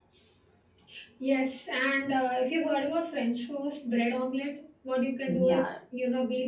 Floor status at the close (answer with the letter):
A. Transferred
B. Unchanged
B